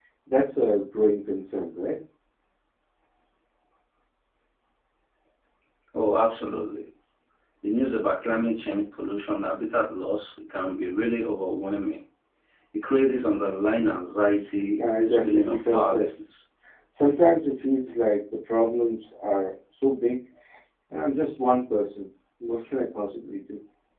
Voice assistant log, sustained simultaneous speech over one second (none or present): present